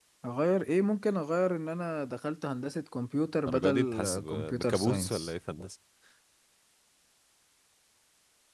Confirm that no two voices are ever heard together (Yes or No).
No